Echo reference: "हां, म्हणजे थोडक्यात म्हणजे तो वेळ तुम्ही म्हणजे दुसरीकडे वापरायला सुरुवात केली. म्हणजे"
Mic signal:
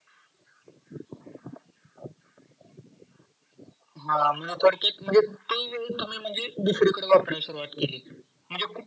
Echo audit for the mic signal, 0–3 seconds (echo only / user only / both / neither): neither